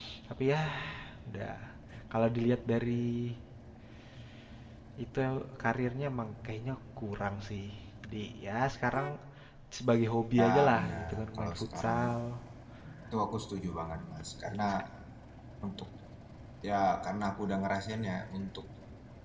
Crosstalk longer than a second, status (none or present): present